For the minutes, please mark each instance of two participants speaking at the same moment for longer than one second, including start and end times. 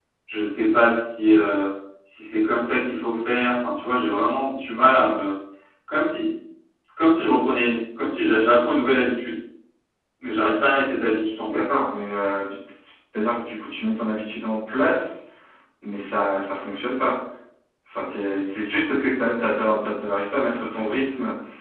none

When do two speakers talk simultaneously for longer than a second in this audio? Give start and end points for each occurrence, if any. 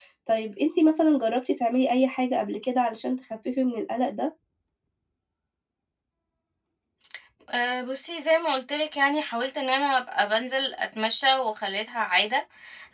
none

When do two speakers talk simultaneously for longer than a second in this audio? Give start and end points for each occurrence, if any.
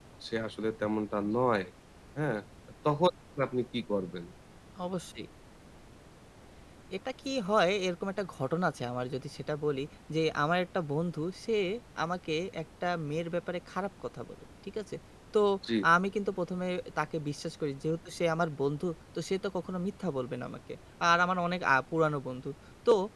none

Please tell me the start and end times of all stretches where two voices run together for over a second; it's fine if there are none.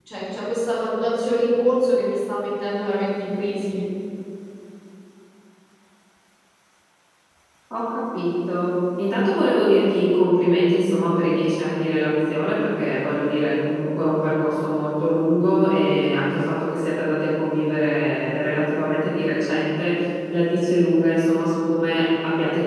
none

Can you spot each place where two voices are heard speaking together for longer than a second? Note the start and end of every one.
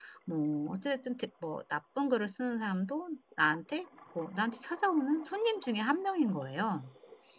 none

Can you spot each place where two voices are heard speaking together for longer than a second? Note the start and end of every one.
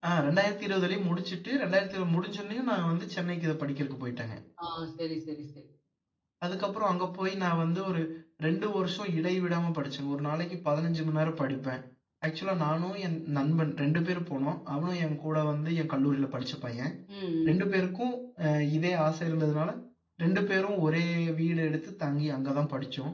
none

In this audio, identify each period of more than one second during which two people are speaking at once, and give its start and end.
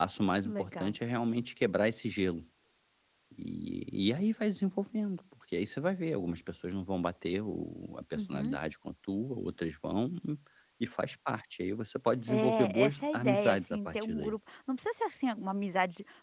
12.3-14.3

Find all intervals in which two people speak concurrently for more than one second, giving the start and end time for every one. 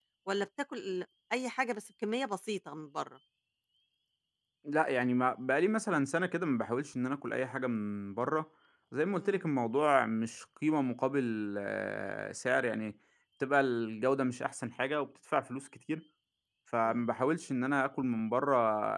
none

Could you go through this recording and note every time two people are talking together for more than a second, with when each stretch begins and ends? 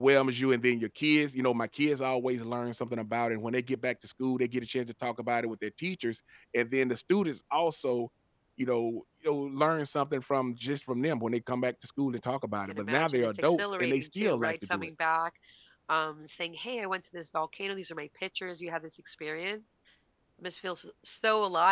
12.7-14.9

